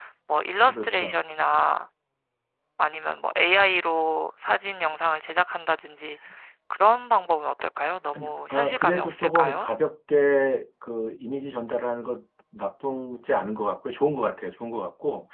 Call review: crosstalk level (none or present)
present